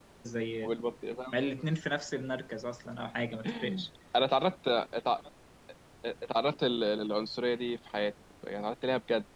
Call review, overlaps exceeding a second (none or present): none